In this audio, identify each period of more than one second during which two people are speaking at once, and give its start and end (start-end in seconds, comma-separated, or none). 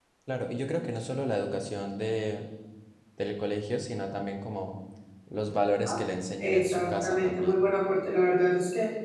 6.4-7.6